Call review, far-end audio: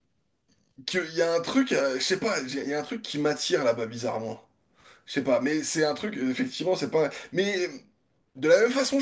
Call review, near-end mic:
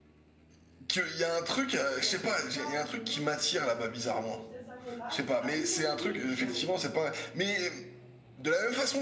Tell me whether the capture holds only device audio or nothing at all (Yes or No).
No